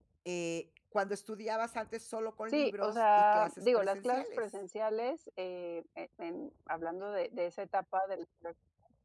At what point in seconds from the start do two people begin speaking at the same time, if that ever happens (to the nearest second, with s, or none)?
3 s